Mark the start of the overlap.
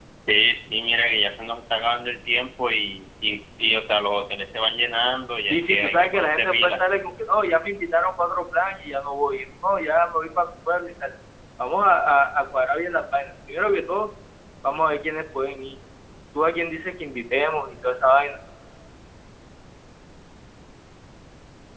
5.4 s

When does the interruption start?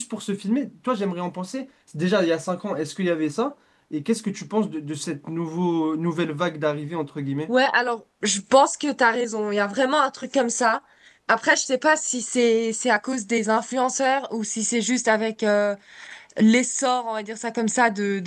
none

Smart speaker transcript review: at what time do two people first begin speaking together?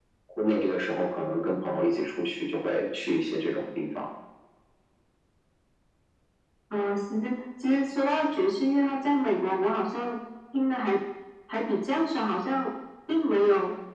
none

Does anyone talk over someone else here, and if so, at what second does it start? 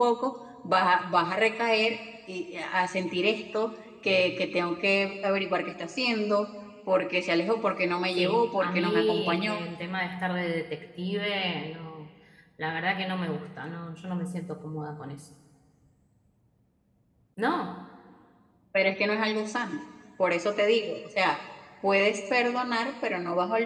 8.1 s

